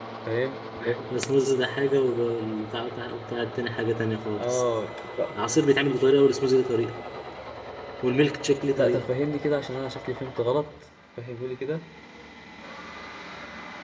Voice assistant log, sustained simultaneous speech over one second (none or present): none